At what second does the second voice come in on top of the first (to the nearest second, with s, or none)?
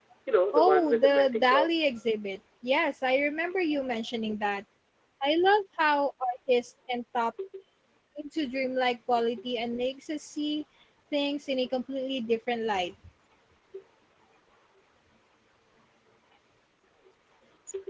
1 s